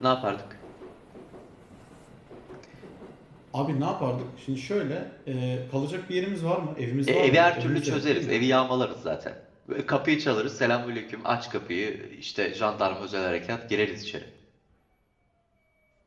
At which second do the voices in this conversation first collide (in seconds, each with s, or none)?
7.1 s